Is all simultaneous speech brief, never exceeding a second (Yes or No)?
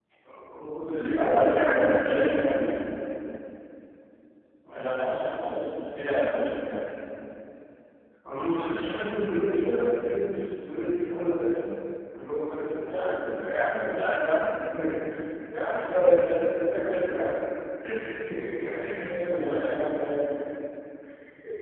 No